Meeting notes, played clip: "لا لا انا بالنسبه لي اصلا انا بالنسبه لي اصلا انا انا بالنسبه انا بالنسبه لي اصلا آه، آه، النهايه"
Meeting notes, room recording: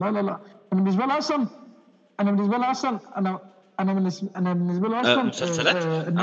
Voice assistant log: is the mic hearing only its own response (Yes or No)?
No